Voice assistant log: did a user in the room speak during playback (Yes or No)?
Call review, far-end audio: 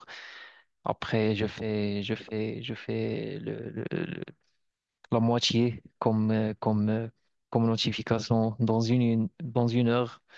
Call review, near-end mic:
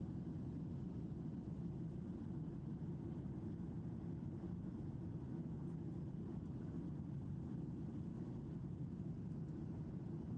No